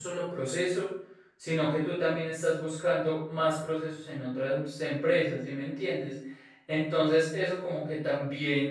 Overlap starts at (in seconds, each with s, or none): none